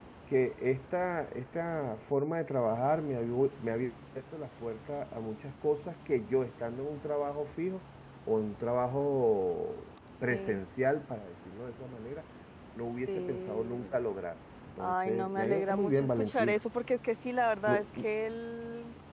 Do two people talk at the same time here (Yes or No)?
Yes